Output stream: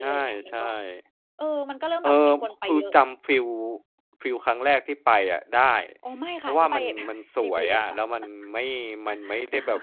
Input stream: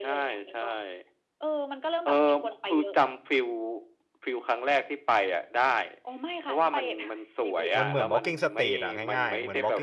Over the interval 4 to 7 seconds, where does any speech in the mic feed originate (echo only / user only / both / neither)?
echo only